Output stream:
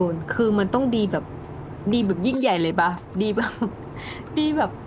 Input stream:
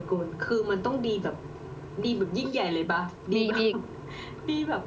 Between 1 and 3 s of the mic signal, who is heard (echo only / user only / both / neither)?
echo only